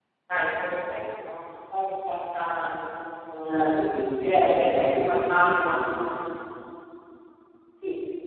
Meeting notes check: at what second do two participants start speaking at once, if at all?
3 s

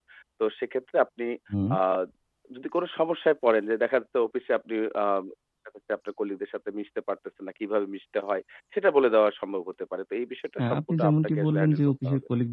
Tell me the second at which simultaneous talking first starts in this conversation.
11 s

